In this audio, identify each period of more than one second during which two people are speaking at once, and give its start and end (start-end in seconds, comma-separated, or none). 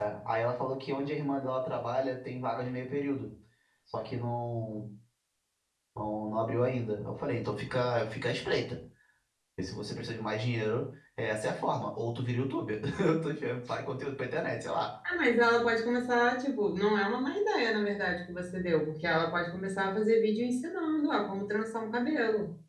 none